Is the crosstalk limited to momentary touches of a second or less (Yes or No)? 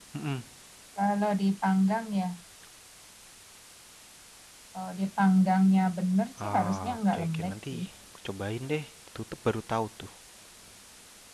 No